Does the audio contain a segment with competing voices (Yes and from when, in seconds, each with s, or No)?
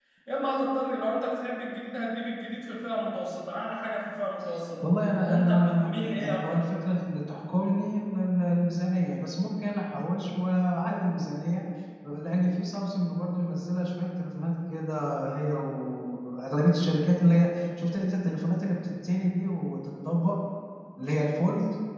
Yes, from 5.3 s